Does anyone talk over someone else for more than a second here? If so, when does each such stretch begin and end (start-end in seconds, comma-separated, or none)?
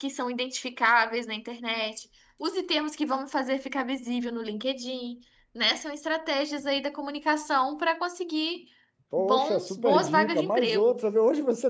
9.2-11.0